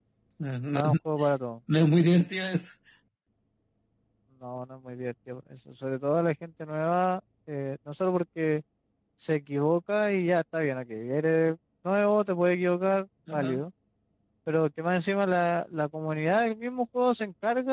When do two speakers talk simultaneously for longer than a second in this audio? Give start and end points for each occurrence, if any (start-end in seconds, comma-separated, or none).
none